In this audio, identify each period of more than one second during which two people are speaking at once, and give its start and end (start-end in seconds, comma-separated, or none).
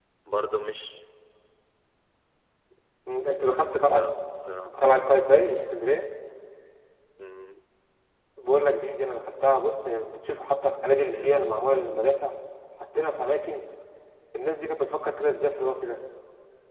none